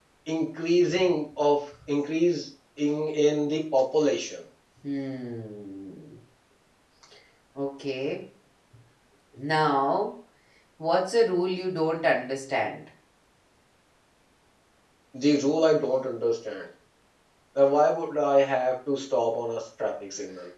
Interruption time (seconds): none

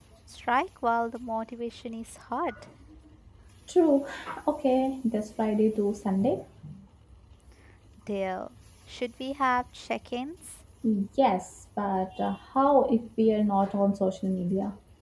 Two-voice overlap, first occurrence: none

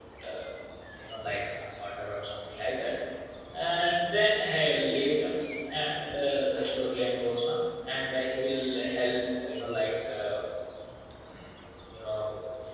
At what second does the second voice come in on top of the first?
none

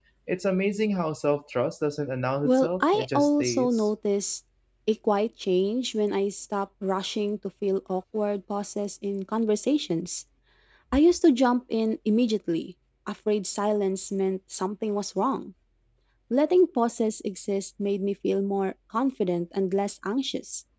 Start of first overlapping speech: 2.5 s

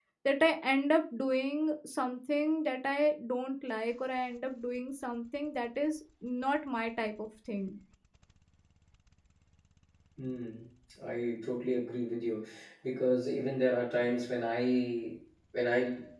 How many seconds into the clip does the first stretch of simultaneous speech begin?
none

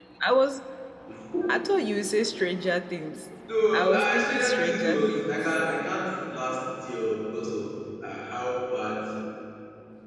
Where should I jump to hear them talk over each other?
4.0 s

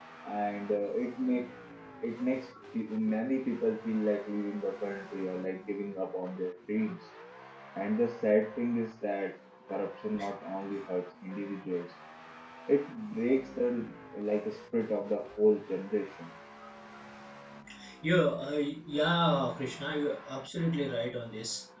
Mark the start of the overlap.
none

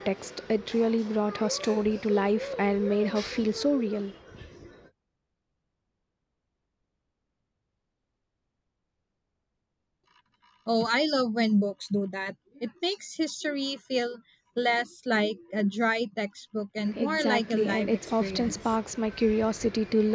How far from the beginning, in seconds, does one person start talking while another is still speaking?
16.9 s

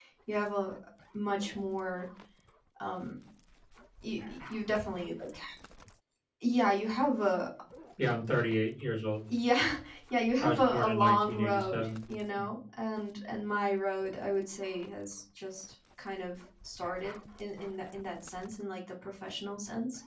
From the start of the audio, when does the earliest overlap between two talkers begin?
10.4 s

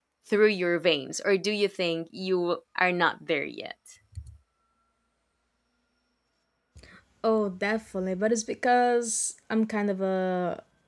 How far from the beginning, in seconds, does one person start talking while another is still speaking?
none

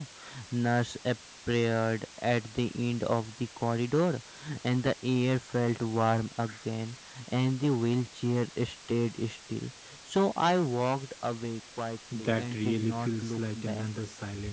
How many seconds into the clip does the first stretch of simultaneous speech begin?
12.1 s

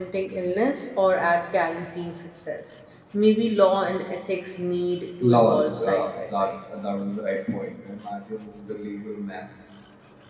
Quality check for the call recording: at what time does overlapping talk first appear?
5.2 s

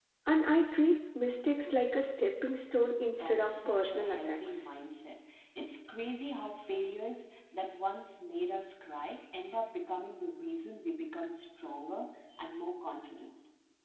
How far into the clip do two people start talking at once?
3.1 s

